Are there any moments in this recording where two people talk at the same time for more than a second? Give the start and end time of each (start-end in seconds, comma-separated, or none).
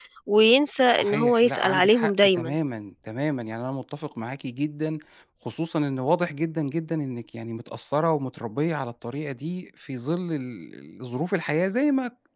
0.9-2.5